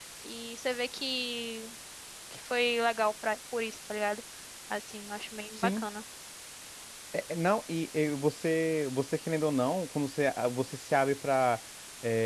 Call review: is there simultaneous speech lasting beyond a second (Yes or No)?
No